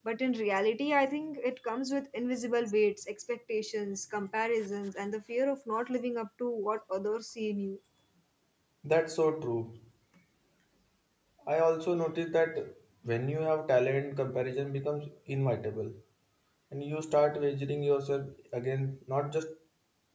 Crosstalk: none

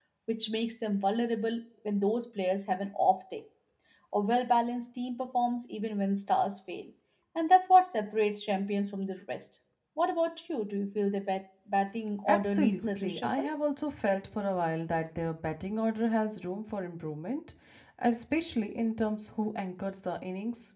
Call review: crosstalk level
present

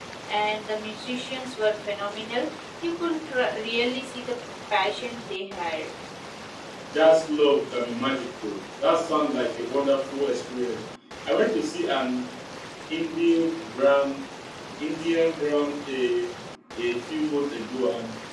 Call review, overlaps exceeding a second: none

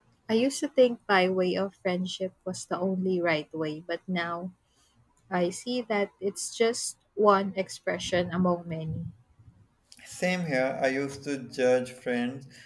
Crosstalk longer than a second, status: none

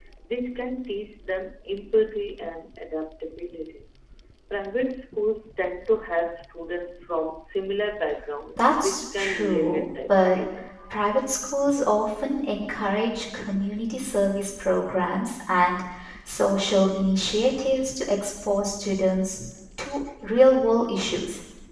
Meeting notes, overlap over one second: present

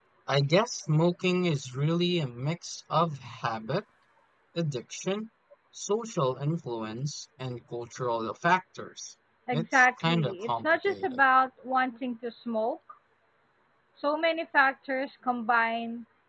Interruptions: present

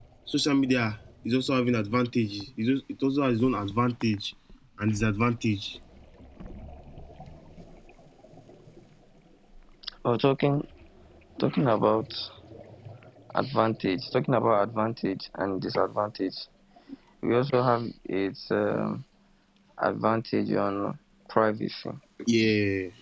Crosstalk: none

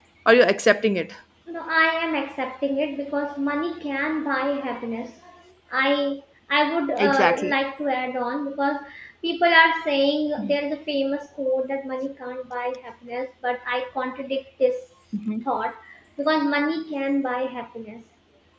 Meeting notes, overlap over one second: none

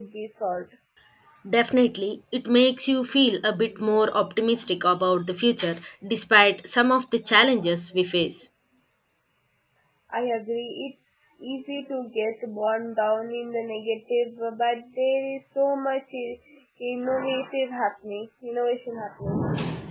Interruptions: none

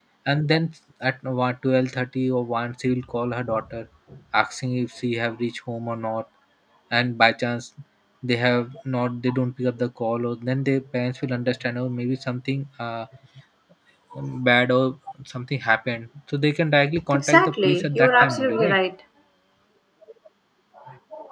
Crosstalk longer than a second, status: present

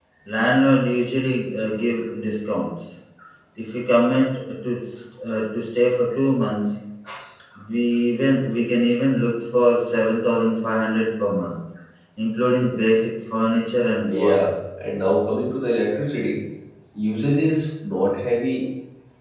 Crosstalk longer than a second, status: none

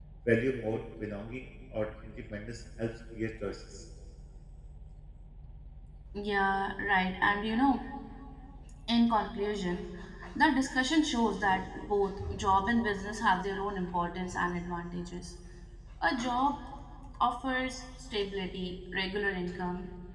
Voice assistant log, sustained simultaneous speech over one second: none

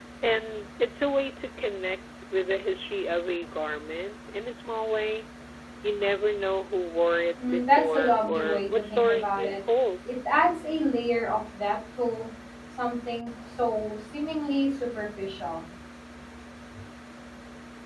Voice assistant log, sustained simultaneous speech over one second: present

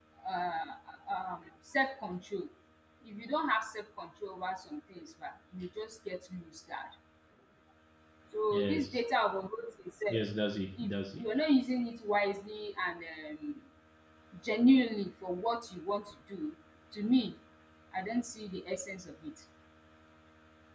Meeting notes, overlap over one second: none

